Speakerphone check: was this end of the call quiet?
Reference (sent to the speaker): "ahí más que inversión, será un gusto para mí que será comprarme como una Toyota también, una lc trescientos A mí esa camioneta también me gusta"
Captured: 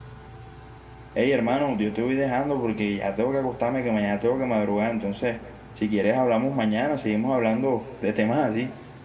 No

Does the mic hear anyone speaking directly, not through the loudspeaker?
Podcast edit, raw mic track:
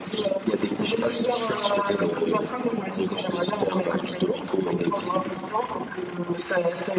No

